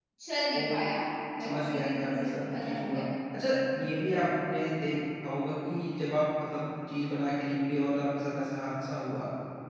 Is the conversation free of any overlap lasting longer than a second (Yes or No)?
No